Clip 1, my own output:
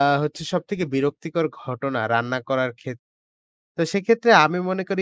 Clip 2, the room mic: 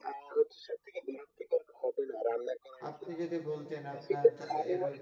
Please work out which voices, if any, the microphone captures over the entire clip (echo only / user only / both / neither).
both